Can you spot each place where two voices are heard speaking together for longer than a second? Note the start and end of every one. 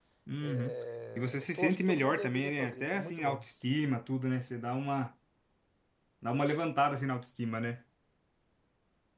1.2-3.4

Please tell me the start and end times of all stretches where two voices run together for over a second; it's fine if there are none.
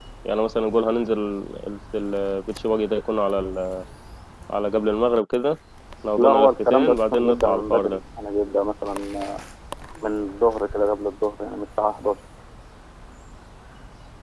6.2-8.0

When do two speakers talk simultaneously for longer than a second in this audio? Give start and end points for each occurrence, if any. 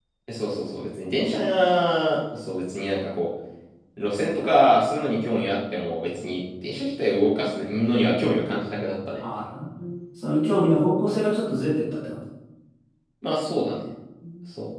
none

